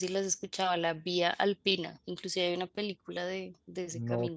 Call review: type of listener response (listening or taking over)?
taking over